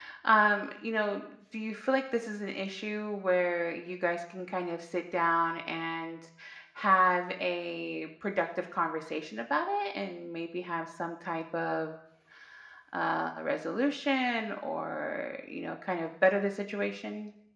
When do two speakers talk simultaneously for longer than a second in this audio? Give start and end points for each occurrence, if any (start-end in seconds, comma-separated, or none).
none